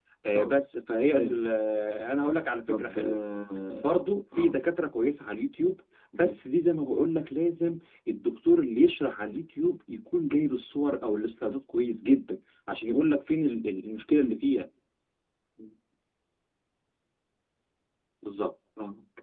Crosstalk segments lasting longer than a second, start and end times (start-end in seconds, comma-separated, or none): none